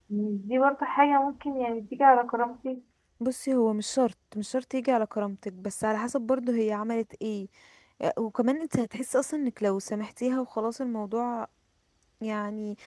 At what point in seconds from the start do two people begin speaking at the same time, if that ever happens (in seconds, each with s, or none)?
none